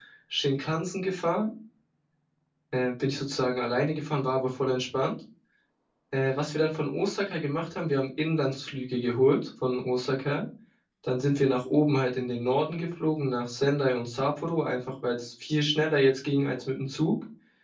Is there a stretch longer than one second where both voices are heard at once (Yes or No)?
No